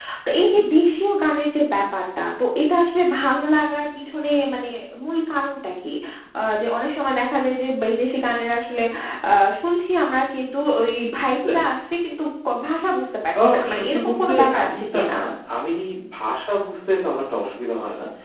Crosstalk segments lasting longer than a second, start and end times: 13.4-15.2

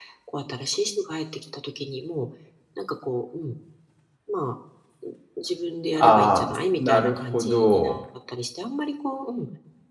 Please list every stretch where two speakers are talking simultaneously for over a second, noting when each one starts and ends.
6.0-8.0

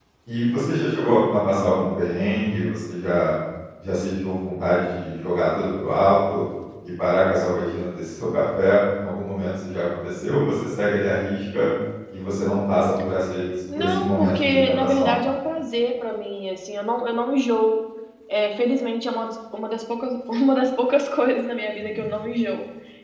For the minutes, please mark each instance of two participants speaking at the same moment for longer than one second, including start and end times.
13.8-15.1

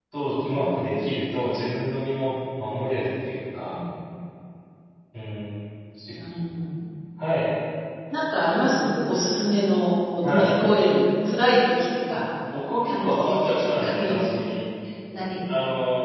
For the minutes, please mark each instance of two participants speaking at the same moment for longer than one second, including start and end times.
12.9-14.2

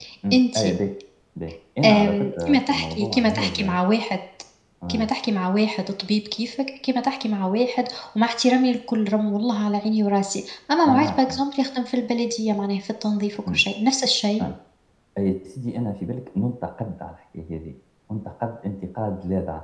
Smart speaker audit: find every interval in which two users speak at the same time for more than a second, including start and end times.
1.8-3.8

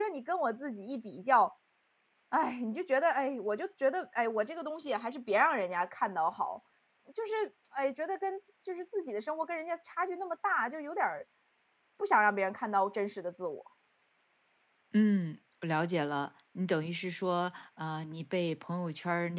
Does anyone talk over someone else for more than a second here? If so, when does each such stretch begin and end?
none

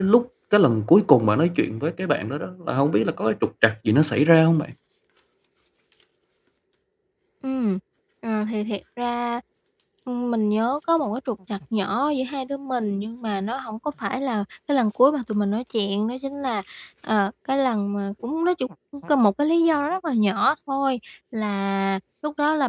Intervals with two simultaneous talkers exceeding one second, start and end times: none

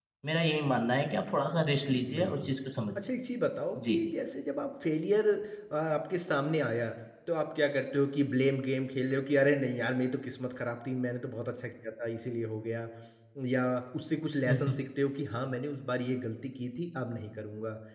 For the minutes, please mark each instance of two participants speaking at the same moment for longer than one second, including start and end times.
none

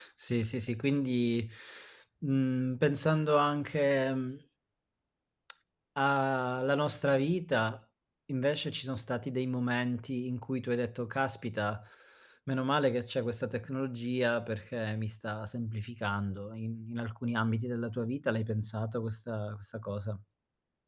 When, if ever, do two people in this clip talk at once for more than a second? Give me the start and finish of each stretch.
none

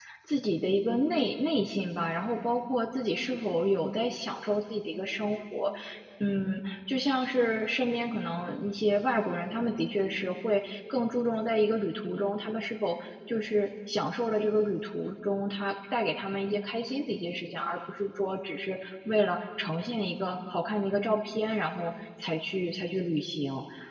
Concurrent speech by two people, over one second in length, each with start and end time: none

